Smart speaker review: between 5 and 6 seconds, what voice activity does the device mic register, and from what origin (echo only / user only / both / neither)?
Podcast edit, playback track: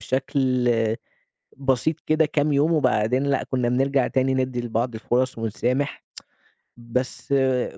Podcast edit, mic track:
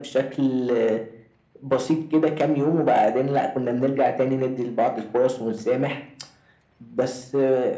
echo only